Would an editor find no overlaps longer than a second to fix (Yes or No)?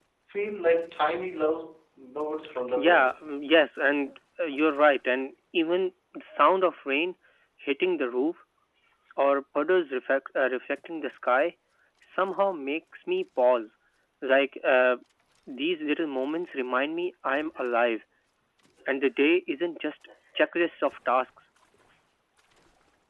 Yes